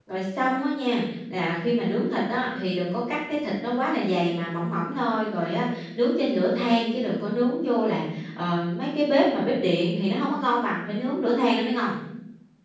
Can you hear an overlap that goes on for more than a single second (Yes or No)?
No